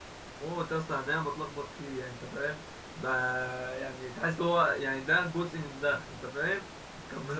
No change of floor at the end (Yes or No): No